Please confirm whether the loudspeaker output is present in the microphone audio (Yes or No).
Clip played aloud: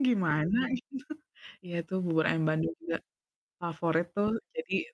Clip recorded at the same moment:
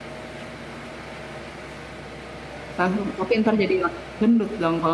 No